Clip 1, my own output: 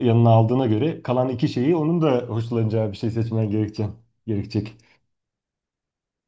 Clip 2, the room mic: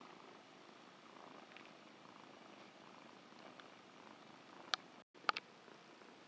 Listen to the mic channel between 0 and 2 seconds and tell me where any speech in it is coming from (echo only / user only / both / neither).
neither